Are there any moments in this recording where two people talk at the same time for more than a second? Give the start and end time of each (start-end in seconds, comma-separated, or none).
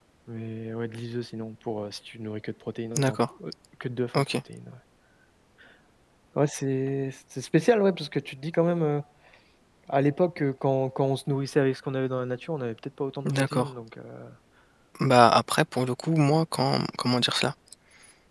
none